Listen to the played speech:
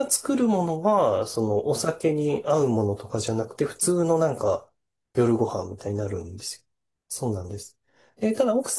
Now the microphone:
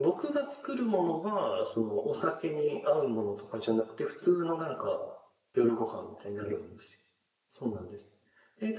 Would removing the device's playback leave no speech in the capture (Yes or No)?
Yes